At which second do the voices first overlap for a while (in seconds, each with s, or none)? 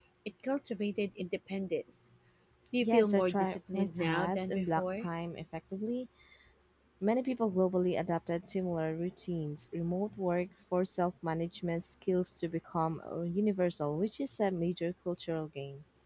2.8 s